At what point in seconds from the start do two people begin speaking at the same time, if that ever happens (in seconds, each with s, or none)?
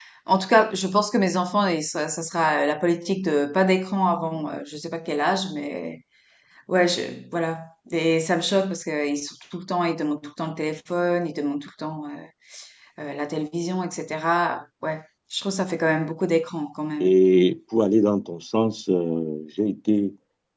none